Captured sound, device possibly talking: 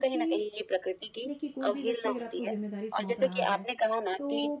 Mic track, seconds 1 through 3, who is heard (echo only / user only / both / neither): both